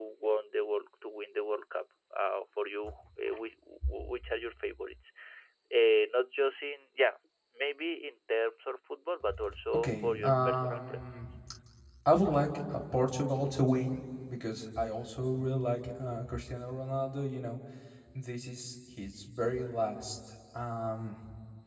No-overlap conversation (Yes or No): No